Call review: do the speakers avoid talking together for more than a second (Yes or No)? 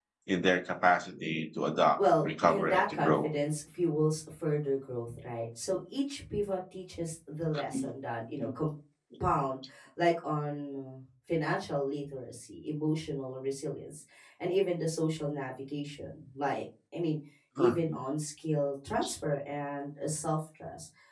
No